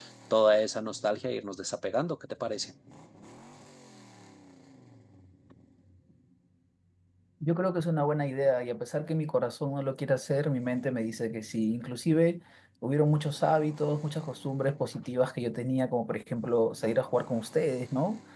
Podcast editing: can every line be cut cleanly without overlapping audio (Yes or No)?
Yes